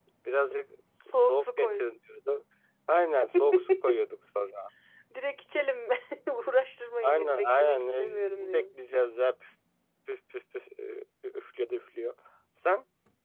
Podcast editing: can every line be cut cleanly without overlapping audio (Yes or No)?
No